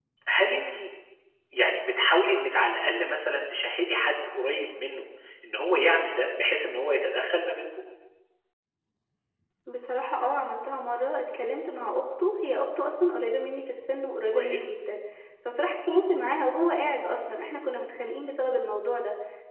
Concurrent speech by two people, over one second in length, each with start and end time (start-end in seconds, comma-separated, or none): none